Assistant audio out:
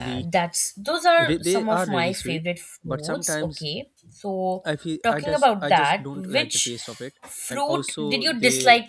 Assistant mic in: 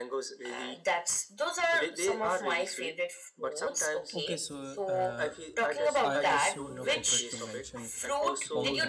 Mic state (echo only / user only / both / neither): both